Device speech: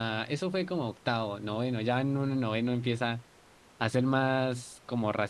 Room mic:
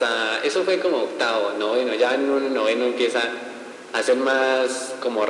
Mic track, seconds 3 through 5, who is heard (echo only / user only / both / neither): echo only